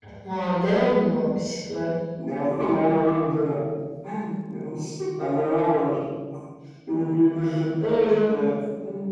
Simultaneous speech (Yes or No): No